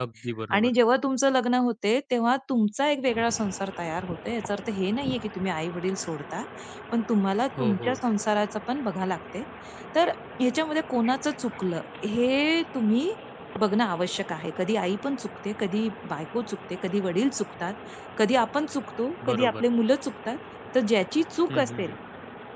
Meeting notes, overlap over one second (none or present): none